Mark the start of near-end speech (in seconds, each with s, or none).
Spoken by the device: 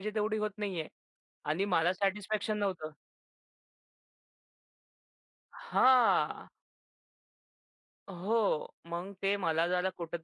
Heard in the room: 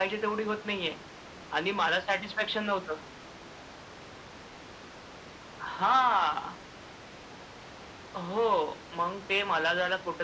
none